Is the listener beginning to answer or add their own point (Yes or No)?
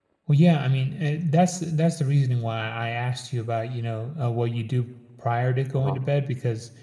No